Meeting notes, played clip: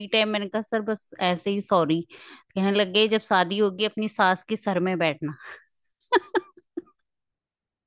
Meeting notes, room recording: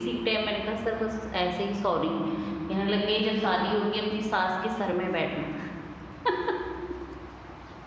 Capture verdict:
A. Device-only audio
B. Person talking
A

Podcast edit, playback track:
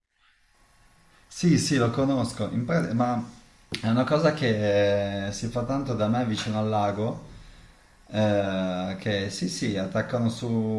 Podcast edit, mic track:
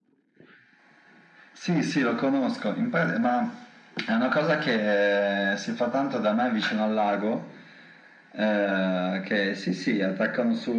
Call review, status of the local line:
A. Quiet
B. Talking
A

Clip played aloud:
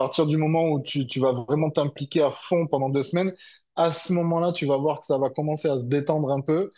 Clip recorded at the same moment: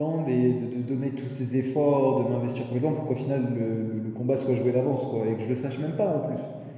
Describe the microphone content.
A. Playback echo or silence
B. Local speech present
B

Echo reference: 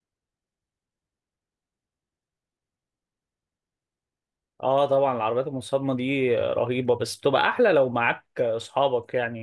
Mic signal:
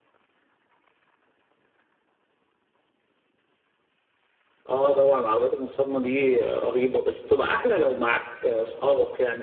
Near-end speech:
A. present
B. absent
B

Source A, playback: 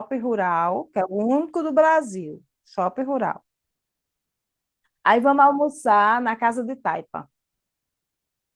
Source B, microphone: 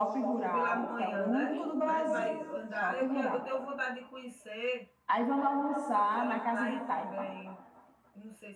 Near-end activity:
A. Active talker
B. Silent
A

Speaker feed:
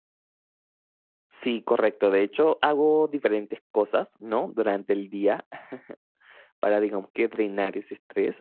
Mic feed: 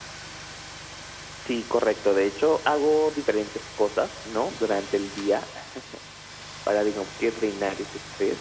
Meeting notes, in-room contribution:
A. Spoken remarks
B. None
B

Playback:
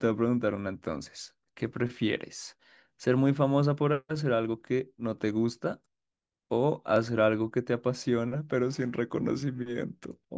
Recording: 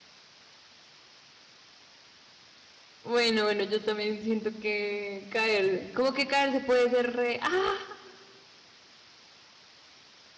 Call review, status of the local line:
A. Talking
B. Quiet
A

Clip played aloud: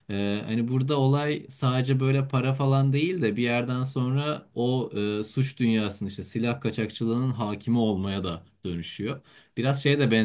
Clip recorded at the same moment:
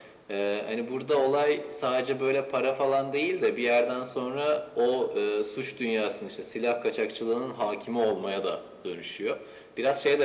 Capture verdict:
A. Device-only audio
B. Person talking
A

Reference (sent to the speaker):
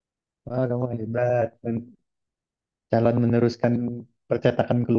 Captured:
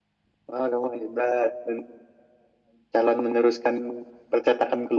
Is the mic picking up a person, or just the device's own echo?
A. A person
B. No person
B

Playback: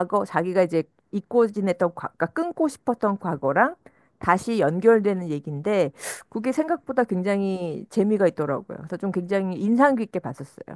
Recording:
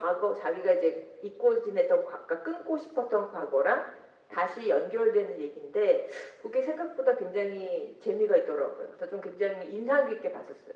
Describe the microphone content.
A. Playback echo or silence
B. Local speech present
A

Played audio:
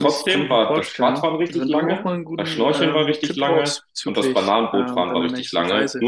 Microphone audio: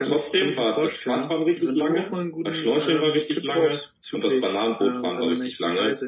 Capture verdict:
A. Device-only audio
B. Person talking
A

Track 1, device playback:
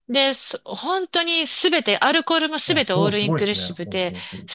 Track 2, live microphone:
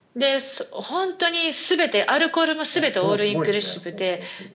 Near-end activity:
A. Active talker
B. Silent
B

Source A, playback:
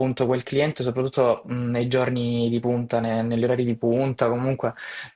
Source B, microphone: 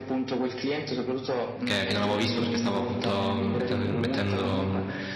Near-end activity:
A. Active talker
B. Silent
A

